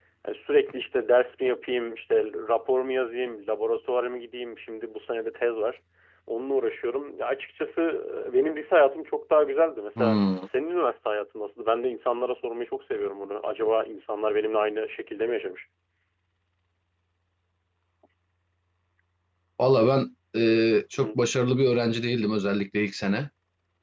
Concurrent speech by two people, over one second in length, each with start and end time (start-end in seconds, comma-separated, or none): none